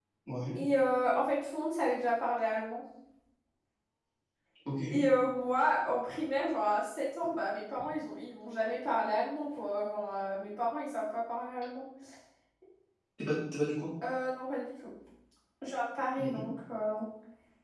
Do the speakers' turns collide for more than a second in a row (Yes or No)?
No